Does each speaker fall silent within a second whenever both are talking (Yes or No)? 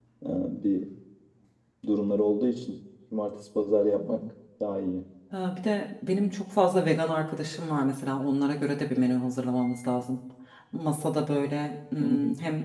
Yes